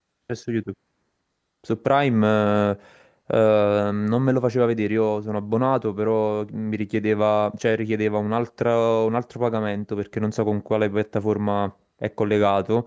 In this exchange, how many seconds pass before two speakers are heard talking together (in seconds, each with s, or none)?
none